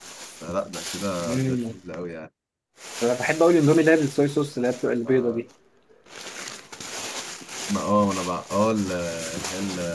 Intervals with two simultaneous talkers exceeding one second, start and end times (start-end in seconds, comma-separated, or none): none